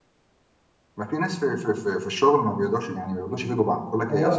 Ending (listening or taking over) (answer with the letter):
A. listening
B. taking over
B